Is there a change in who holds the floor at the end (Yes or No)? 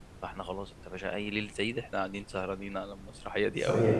Yes